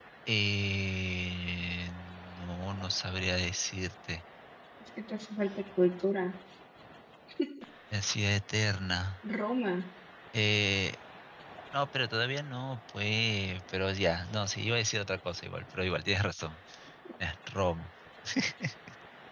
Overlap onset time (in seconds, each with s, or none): none